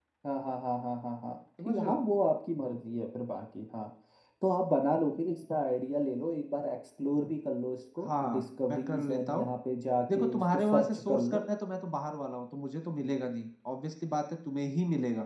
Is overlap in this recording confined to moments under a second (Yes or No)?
No